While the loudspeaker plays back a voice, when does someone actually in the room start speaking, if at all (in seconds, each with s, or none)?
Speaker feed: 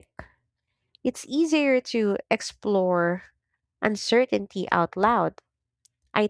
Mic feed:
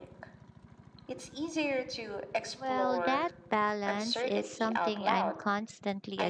2.5 s